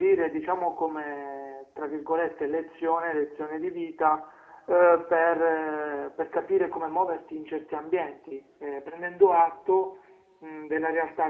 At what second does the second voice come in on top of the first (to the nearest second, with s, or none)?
none